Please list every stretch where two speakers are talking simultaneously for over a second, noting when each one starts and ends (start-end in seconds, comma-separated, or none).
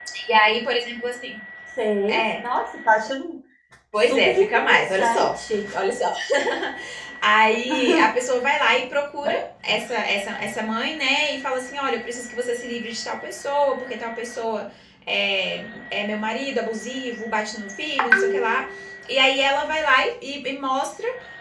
4.0-5.3